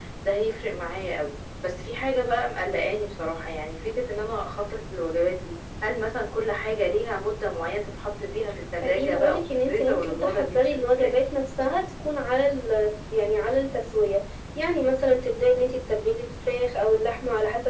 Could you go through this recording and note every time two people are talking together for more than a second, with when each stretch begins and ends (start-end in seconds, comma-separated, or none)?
8.8-11.1